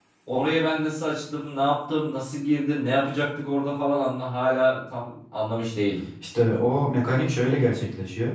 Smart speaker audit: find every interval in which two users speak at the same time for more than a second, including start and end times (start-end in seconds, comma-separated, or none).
none